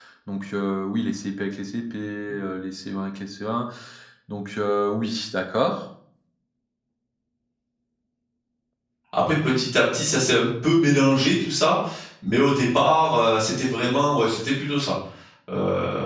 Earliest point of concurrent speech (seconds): none

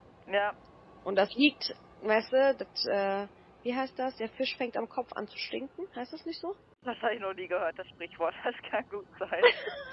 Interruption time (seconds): none

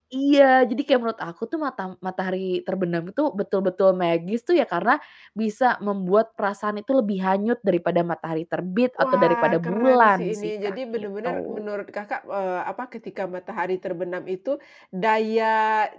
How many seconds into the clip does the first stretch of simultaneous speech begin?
8.9 s

